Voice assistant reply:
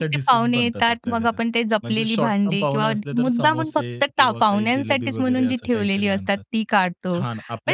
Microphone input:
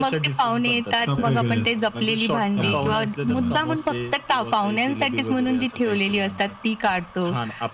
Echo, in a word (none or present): present